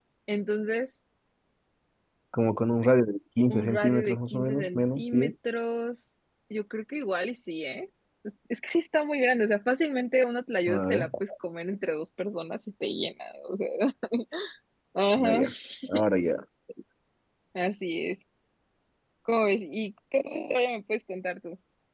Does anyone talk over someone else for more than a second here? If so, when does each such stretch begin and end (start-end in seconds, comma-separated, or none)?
3.5-5.3